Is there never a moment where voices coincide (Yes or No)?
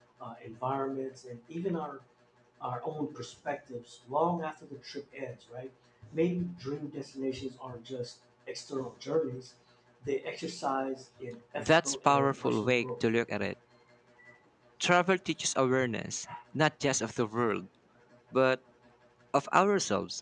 No